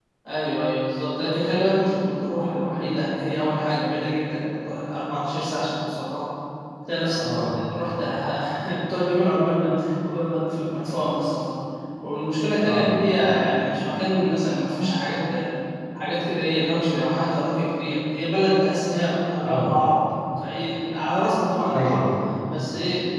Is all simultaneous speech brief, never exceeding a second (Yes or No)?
Yes